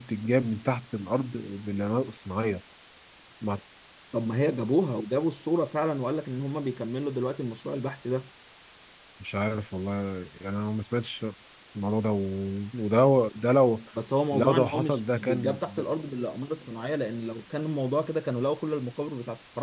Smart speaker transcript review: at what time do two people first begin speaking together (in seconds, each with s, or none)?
14.3 s